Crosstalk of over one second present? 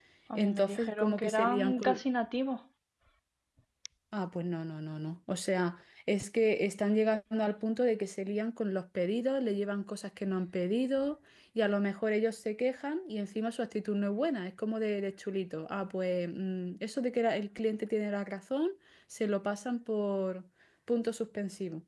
Yes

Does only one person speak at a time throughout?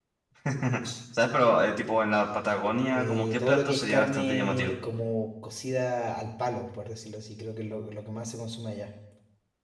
No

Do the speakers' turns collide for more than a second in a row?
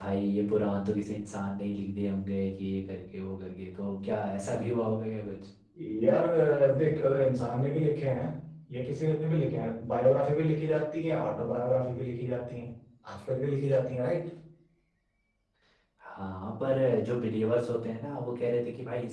No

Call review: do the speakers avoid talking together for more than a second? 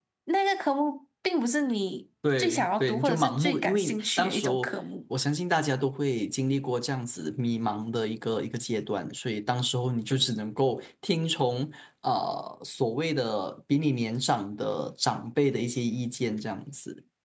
No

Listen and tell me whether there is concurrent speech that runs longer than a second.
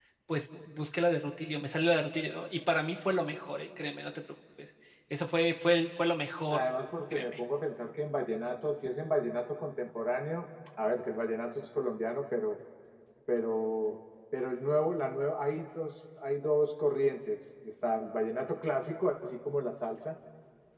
No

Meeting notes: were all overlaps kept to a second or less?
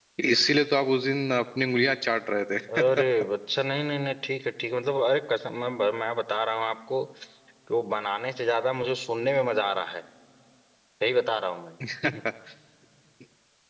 Yes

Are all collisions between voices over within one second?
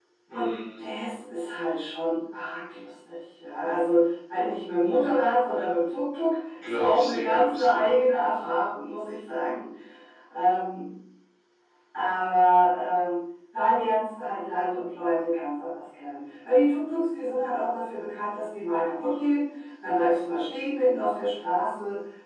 No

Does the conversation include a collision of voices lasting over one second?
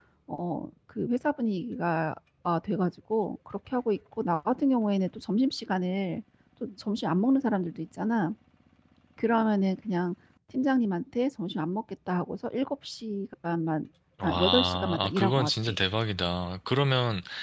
Yes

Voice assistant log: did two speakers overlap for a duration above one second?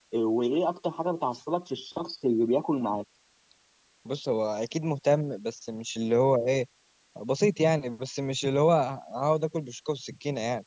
No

